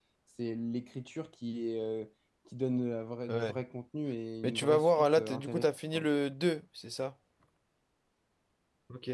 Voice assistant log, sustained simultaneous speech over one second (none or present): present